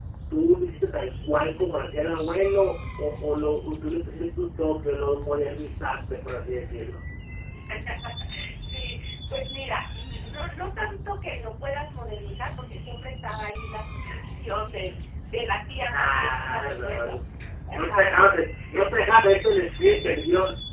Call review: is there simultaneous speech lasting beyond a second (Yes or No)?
Yes